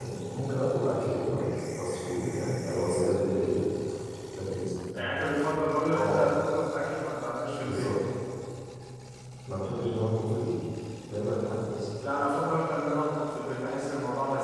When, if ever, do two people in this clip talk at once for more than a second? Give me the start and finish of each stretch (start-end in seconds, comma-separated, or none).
none